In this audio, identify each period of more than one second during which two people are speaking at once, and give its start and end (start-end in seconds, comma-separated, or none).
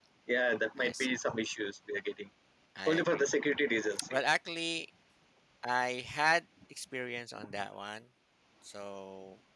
none